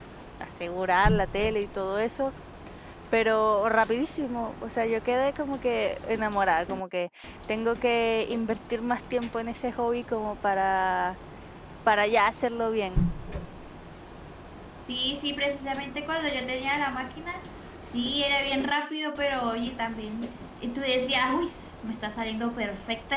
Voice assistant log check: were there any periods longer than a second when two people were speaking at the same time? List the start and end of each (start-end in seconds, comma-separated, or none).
none